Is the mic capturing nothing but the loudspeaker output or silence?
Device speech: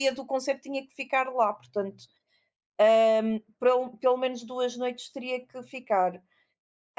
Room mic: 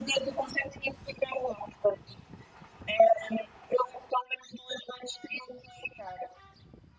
Yes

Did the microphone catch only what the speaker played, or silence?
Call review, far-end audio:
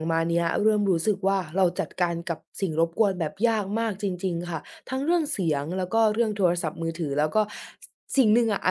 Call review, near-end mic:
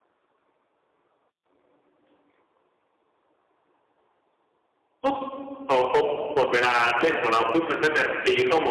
No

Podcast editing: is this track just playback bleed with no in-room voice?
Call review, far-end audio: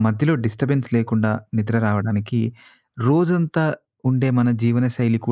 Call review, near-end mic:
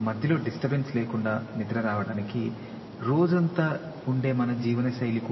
Yes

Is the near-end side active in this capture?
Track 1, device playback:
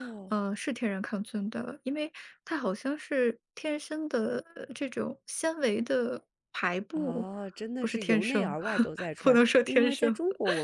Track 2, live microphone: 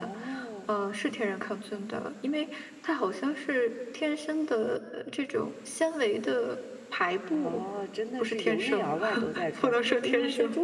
No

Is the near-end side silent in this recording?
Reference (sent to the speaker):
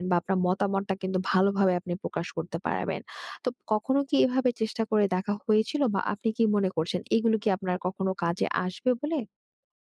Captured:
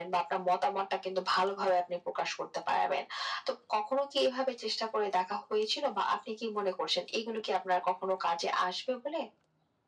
Yes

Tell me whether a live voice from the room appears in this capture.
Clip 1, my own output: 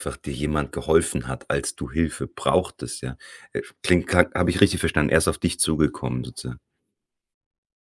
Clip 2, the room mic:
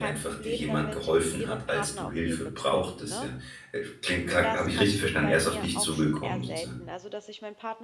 Yes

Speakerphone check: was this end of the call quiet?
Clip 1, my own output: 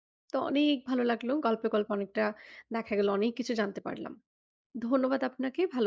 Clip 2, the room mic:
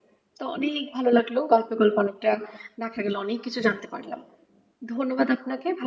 Yes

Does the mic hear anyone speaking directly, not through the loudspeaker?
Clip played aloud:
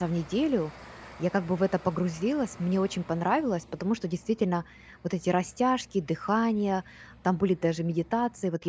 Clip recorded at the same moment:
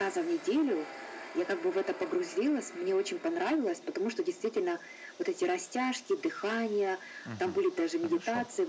Yes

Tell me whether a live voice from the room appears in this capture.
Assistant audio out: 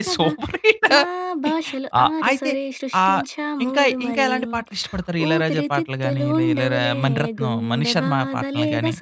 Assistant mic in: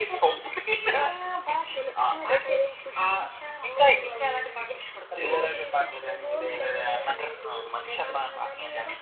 Yes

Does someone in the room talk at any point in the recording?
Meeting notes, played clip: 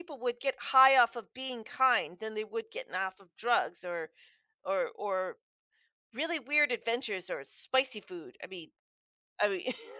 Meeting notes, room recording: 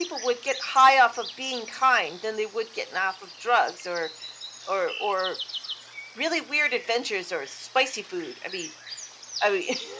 No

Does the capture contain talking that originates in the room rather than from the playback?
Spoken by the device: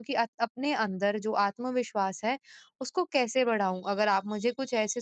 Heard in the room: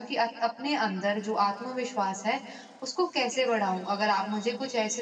No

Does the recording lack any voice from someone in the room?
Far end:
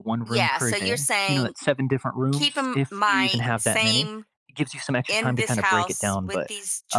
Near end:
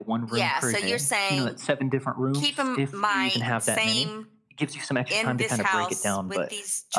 Yes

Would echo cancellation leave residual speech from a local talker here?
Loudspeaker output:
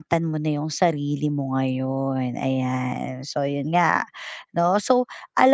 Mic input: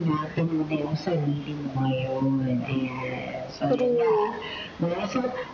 Yes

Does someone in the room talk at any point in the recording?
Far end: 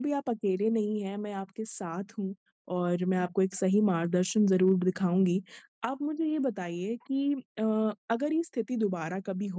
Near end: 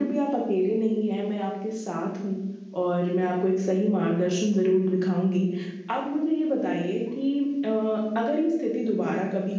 No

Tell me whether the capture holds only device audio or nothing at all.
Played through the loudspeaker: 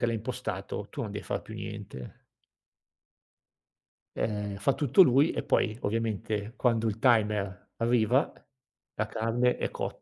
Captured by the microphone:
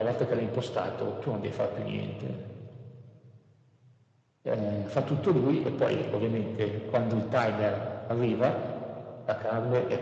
Yes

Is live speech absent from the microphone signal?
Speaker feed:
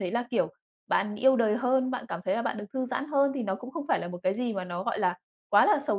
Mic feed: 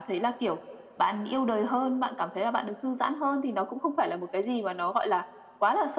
Yes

